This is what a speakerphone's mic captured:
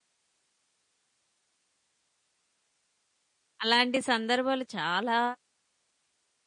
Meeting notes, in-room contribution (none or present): present